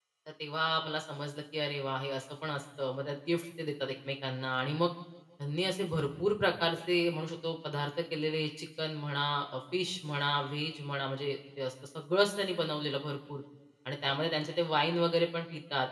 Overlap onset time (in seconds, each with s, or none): none